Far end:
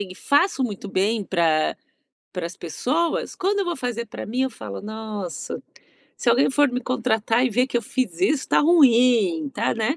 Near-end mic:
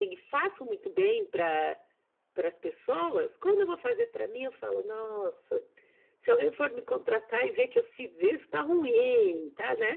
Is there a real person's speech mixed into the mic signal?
No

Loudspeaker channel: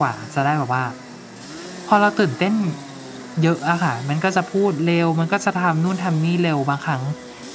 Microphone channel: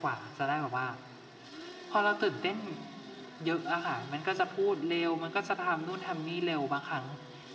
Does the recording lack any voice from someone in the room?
Yes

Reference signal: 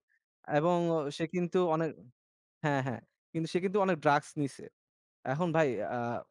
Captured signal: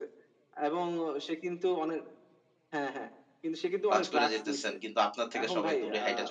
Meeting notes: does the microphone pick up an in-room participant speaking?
Yes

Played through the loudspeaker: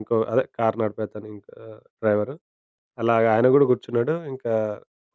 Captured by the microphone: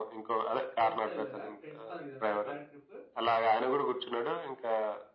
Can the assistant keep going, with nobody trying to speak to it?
No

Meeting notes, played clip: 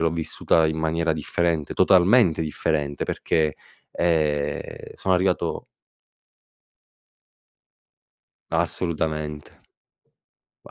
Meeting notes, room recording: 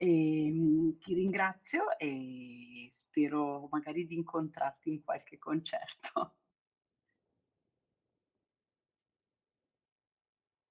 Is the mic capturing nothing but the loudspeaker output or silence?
No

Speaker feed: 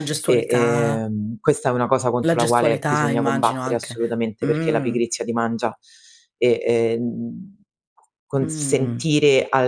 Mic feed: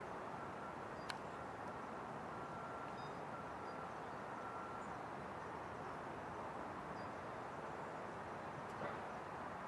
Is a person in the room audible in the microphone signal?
No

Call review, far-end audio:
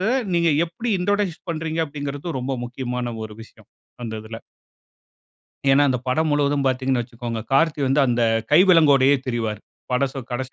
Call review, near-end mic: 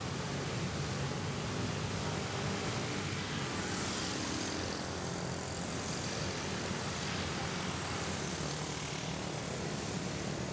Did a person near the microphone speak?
No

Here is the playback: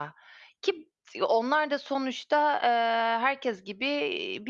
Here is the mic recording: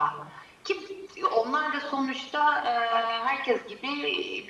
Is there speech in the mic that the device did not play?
No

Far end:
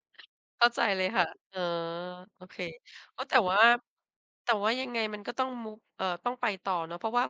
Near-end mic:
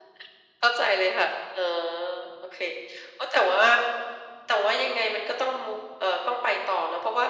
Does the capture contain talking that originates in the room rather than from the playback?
No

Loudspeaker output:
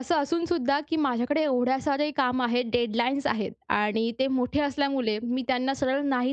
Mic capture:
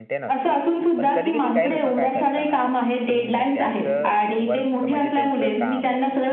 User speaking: Yes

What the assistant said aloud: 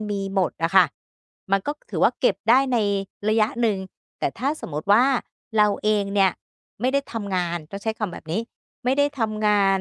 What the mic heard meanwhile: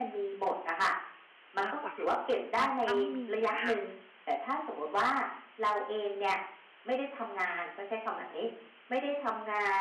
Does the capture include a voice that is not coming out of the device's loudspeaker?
Yes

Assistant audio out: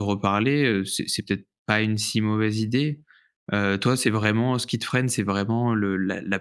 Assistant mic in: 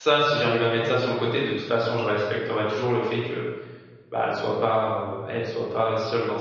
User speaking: Yes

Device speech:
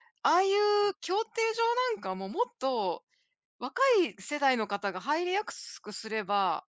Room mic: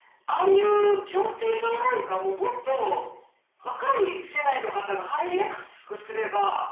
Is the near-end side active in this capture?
No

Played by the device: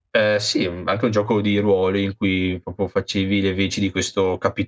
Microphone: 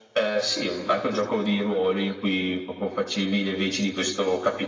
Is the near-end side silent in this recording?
Yes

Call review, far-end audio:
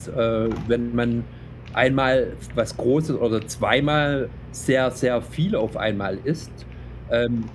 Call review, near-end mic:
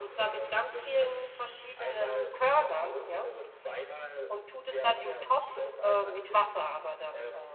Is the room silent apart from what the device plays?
No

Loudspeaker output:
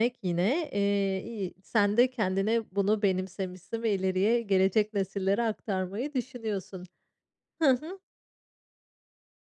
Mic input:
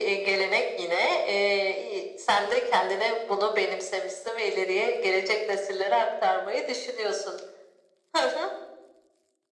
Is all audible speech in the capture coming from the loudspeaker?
Yes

